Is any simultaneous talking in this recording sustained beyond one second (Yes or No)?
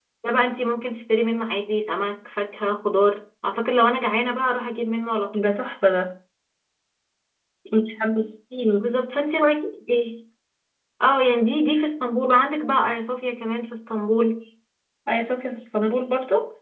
No